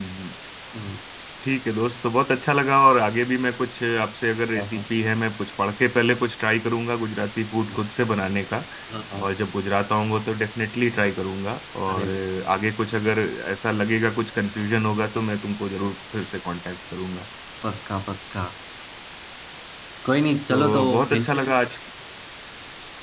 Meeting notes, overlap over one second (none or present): present